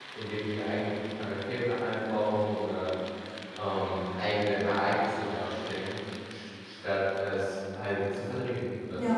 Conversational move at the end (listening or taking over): taking over